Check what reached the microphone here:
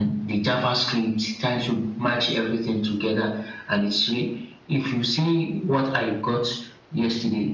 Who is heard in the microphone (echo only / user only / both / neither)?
echo only